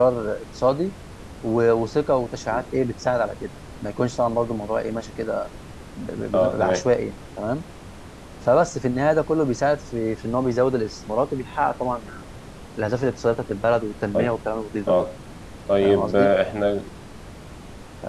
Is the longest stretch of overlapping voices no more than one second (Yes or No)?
Yes